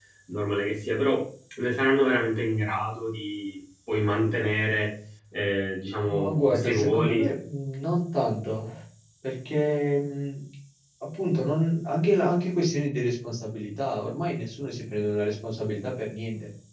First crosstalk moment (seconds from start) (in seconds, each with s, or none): 6.0 s